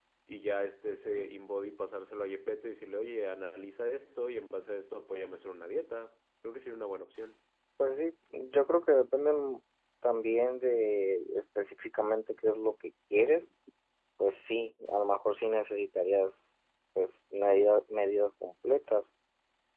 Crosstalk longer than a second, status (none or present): none